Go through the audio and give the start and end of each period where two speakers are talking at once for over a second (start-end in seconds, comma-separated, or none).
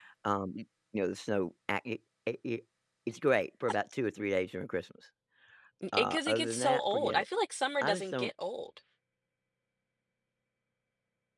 5.9-7.2